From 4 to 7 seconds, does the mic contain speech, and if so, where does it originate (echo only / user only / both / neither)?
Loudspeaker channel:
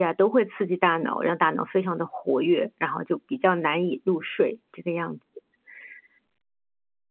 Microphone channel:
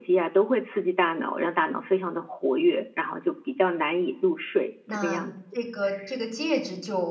both